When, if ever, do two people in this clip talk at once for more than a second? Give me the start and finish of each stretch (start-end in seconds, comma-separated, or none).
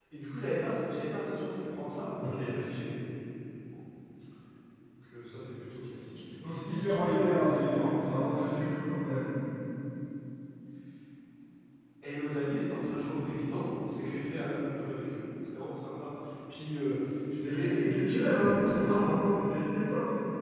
6.5-8.4, 17.4-19.1